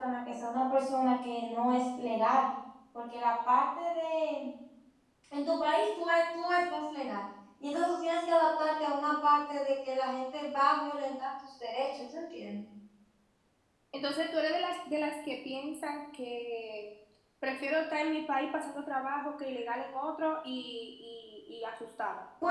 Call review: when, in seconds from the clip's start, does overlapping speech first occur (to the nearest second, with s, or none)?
none